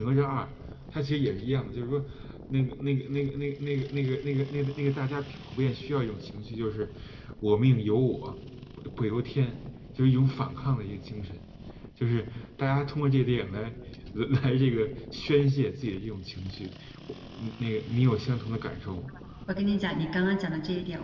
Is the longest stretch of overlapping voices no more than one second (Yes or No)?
Yes